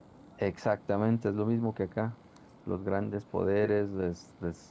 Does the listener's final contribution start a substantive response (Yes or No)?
No